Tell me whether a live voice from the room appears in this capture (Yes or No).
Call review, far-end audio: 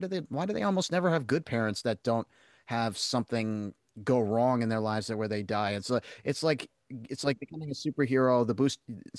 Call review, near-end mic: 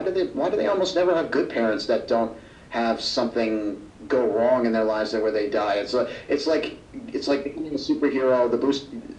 No